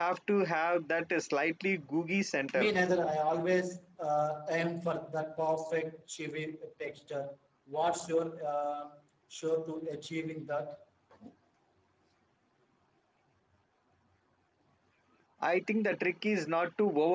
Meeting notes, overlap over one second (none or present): none